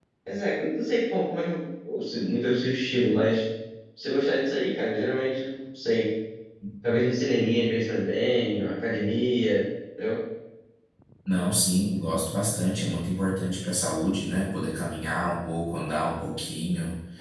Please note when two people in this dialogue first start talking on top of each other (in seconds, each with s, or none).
none